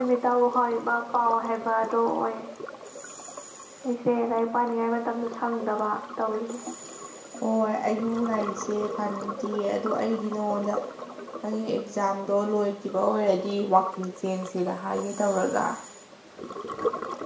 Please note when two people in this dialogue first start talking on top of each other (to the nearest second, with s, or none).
none